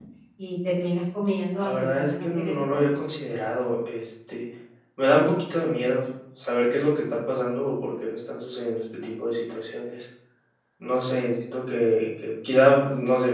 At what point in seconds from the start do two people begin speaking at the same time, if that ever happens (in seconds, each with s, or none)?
1.6 s